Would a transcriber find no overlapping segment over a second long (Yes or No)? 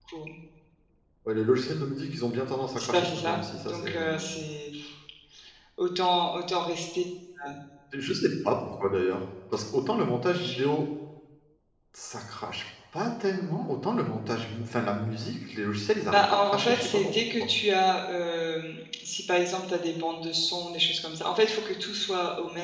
No